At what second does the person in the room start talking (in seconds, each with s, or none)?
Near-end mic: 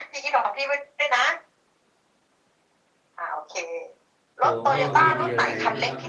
4.4 s